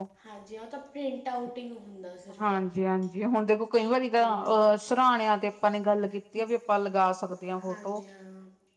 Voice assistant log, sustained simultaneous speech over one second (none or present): none